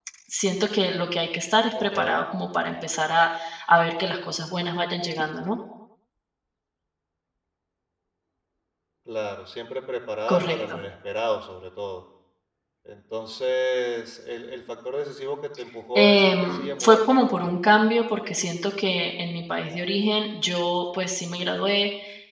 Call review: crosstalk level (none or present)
present